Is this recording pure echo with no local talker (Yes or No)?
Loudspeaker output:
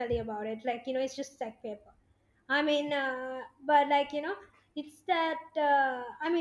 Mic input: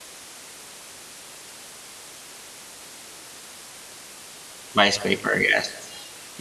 No